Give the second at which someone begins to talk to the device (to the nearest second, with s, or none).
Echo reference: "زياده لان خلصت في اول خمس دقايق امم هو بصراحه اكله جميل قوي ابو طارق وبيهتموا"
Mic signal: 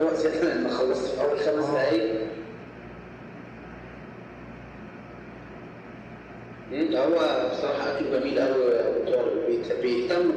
2 s